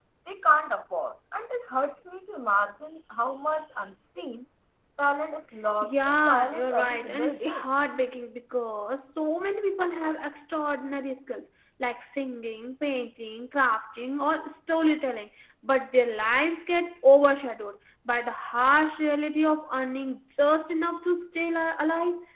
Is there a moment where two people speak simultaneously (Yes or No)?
Yes